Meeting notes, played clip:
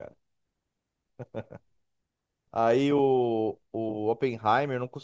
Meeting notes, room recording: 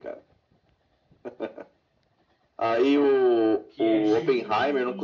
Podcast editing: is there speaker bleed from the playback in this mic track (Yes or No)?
Yes